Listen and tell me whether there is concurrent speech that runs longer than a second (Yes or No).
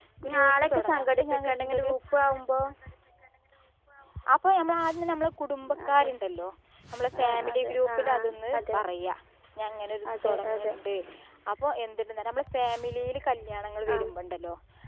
Yes